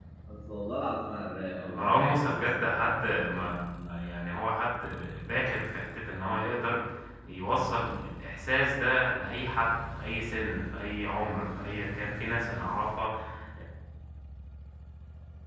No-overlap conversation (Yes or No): No